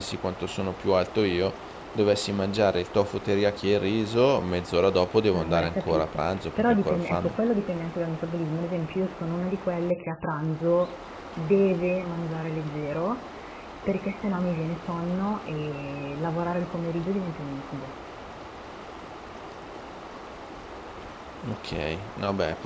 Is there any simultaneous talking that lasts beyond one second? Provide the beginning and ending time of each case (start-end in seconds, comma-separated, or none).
5.3-7.4